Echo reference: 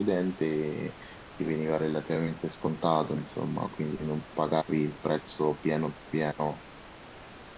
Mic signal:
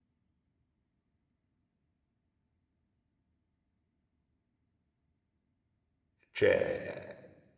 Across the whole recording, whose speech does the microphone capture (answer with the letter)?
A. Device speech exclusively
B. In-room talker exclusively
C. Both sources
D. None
B